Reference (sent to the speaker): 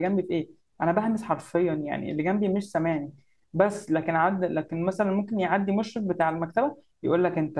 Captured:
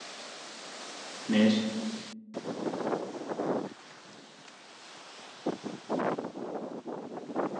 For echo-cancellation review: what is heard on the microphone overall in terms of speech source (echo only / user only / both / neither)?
user only